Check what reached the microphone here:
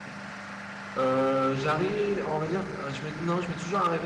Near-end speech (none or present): present